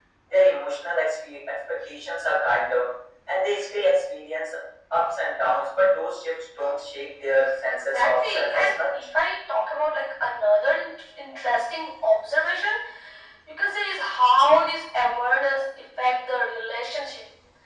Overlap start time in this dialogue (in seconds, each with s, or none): 7.7 s